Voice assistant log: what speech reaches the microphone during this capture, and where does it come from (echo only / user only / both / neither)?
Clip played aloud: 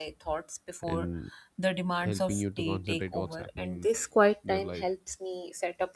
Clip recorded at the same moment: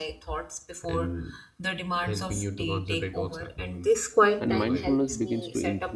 both